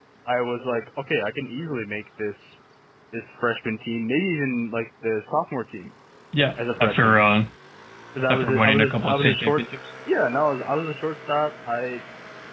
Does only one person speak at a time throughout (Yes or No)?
No